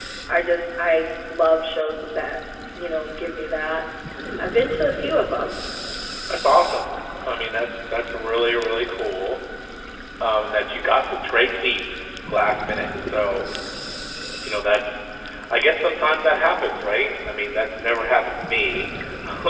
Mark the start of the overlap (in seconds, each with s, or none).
none